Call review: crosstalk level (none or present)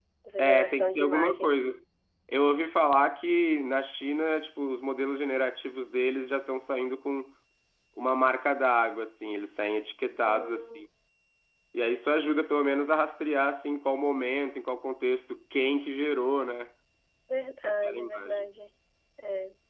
present